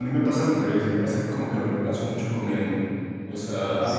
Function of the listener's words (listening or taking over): taking over